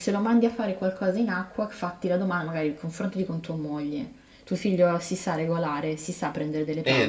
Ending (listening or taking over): taking over